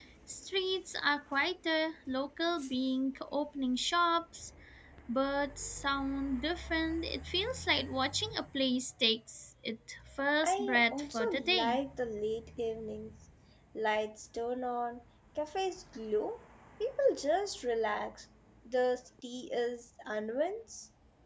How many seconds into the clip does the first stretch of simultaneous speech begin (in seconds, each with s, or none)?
10.4 s